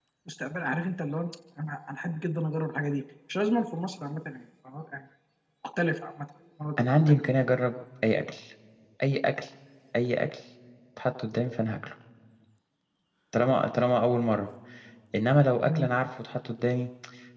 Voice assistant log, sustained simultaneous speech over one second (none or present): none